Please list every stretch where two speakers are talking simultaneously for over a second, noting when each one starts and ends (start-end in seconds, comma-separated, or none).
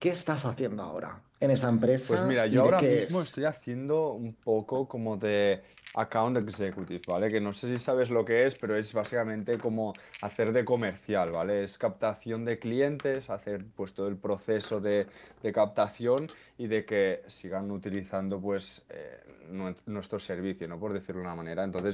2.1-3.3